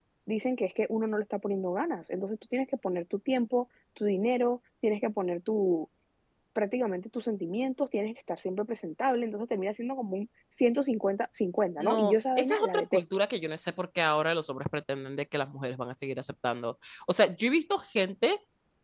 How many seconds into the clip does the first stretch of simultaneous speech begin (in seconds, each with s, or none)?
11.8 s